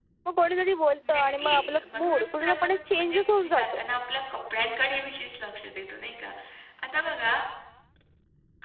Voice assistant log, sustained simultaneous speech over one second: present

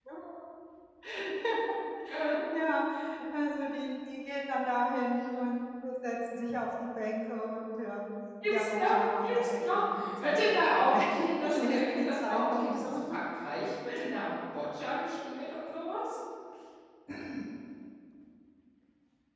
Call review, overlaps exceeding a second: present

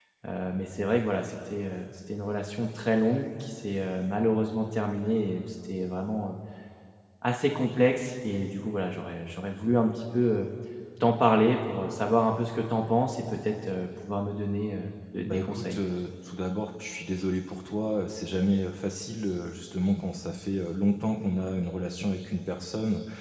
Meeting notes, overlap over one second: none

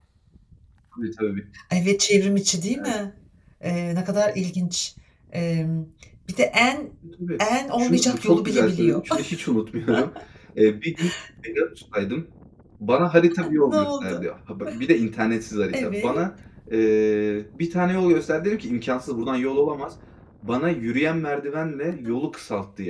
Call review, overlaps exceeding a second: present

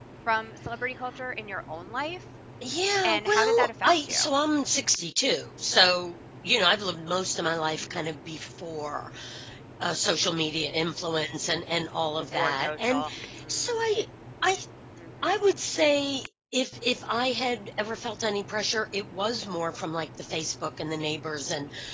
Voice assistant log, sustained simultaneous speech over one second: present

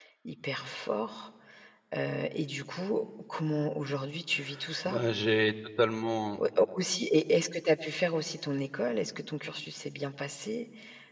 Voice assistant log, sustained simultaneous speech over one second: none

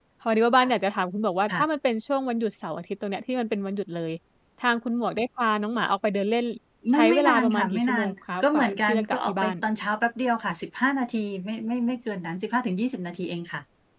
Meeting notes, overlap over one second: present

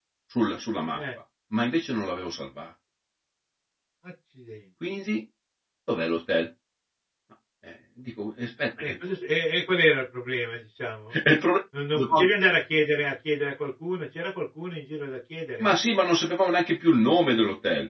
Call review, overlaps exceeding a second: none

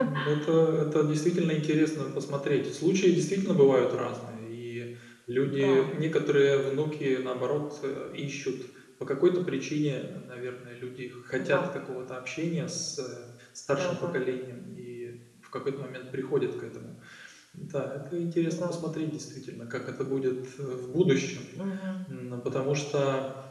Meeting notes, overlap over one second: none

